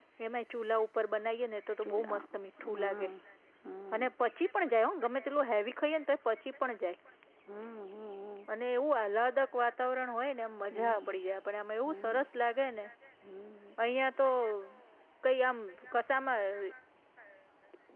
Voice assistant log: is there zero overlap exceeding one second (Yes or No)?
Yes